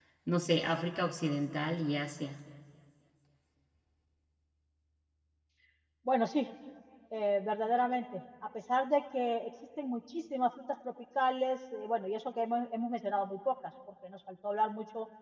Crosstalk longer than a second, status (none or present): none